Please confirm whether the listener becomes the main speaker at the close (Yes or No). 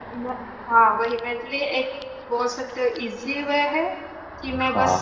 No